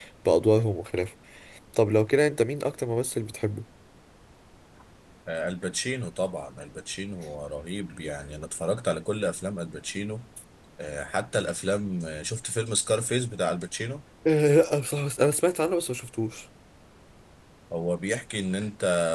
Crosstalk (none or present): none